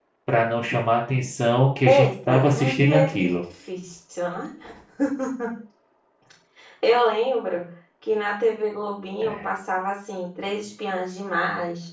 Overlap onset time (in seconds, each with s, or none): 1.9 s